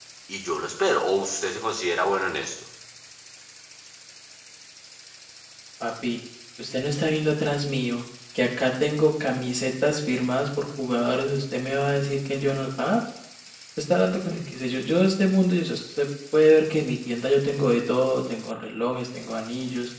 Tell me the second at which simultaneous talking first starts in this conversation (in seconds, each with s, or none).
none